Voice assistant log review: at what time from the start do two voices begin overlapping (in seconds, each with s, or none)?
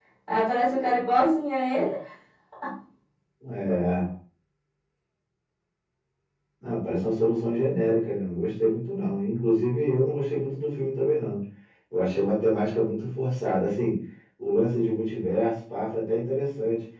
none